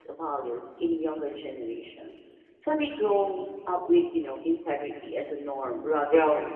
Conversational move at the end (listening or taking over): taking over